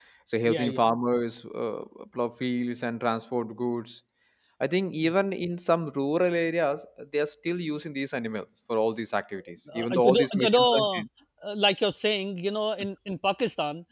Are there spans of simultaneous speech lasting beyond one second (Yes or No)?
Yes